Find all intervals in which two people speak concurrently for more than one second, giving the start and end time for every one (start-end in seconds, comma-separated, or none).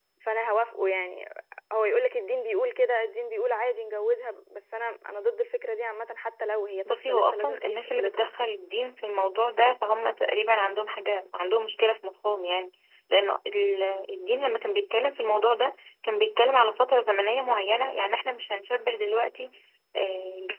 6.8-8.3